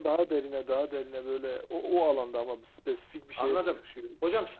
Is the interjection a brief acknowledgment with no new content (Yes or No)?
No